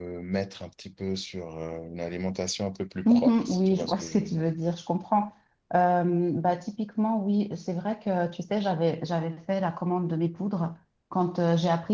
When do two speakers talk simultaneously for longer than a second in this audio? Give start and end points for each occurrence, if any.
3.0-4.5

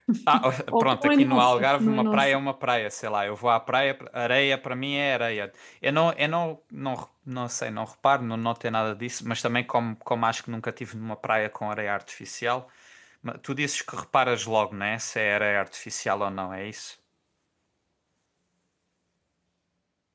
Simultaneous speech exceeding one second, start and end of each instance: 0.8-2.4

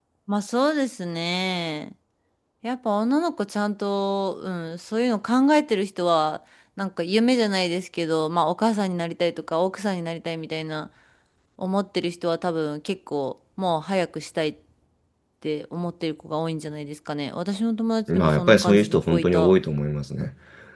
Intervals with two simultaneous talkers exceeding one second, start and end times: 18.1-19.5

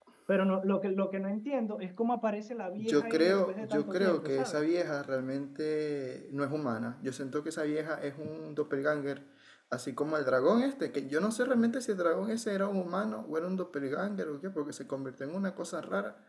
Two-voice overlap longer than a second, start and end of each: 2.8-4.6

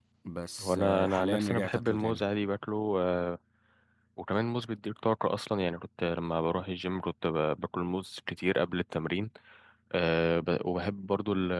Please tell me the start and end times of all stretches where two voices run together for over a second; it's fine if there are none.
0.6-2.2

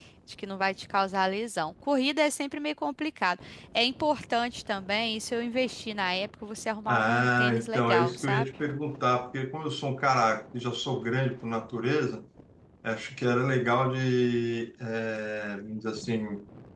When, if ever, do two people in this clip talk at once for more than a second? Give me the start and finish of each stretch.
6.9-8.5

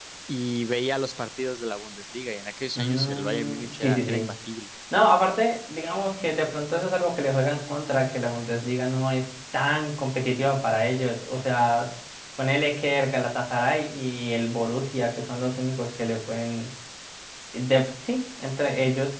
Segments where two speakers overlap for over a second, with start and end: 2.8-4.3

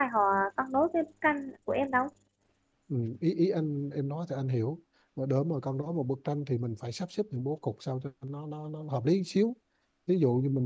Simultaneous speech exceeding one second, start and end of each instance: none

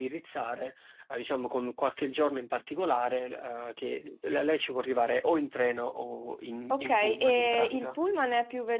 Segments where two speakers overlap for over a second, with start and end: 6.7-8.0

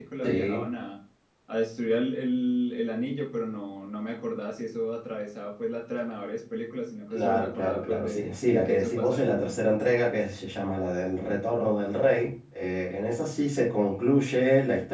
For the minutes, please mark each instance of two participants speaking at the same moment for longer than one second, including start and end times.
7.1-9.5

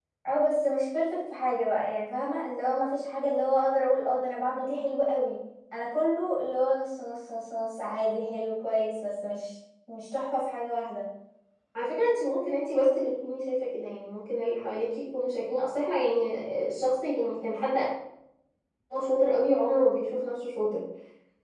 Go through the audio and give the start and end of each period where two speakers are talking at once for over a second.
none

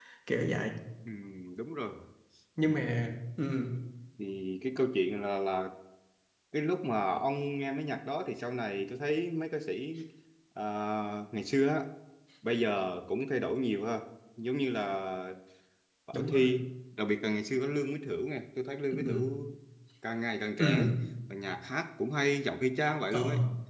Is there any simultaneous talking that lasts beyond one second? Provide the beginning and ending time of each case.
none

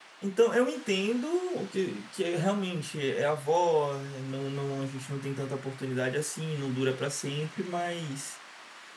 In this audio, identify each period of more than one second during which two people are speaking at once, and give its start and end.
none

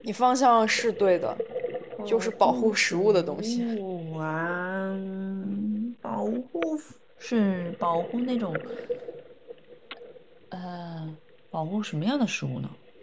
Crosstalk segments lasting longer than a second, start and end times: 2.1-3.6

